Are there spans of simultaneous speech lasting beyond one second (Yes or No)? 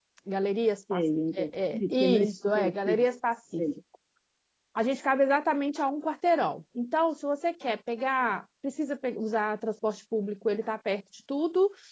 Yes